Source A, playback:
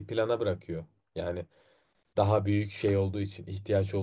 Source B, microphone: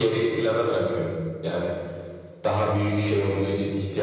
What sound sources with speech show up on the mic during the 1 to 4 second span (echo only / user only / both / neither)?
echo only